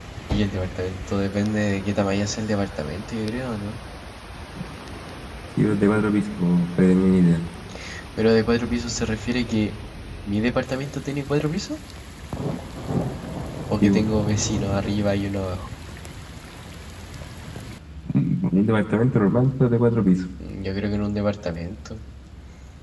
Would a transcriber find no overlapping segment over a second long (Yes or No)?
Yes